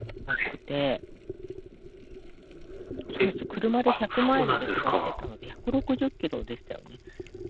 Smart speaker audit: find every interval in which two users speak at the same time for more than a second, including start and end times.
3.9-5.2

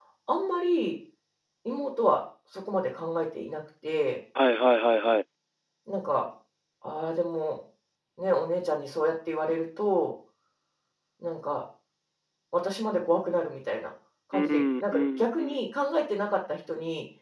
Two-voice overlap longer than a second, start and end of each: 14.3-15.6

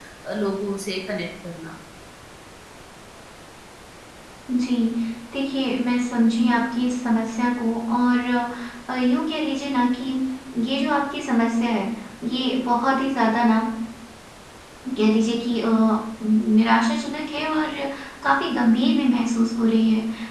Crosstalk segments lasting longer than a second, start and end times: none

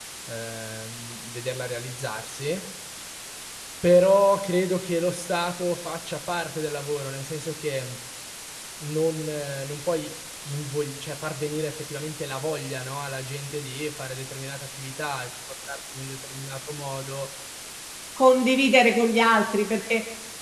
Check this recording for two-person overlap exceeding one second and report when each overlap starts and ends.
none

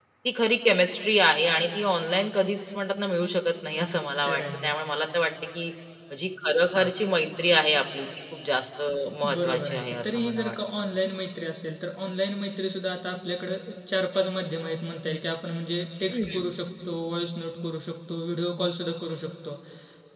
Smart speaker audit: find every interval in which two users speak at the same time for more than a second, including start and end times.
9.2-10.5

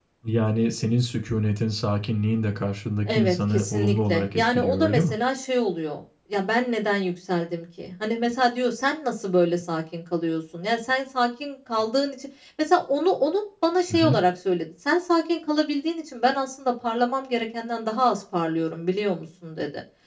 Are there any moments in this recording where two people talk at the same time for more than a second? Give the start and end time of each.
3.1-5.1

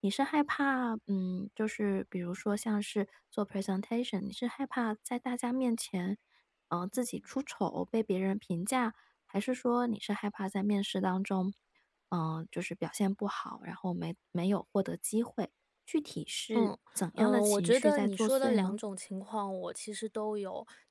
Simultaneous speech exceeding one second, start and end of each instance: 17.1-18.8

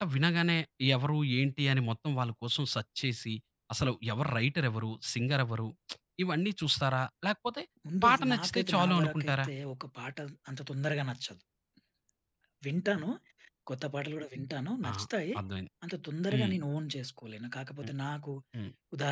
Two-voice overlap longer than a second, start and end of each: 8.0-9.5

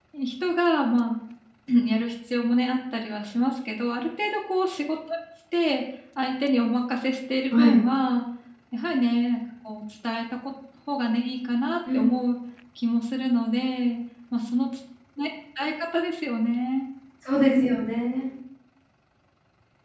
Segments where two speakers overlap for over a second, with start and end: none

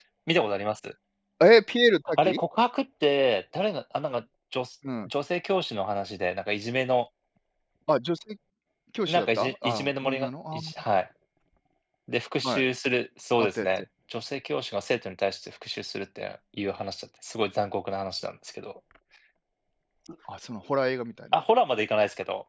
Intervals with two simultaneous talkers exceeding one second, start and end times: 9.1-10.7

